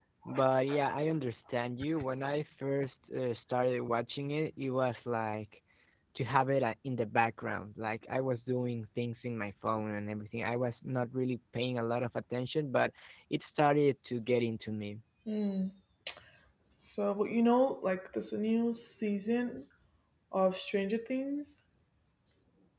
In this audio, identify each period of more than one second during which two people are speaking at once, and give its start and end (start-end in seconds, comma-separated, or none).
none